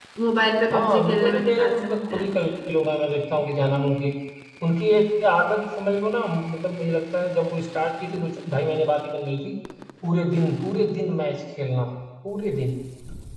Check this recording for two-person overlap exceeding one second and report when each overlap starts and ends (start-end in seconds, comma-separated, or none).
0.7-2.3